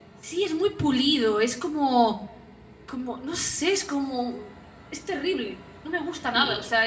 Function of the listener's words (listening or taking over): listening